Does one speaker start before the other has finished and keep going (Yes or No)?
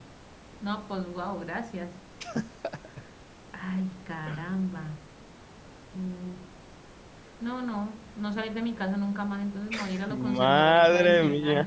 Yes